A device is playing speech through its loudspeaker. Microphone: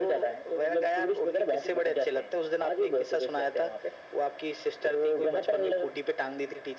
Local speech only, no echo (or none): none